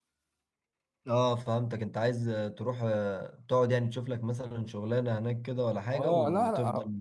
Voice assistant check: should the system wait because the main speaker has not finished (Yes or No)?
No